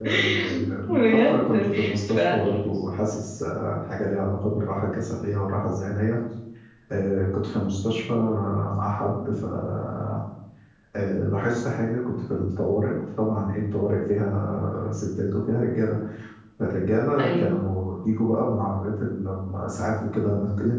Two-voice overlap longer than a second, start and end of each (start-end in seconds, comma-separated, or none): 0.9-2.2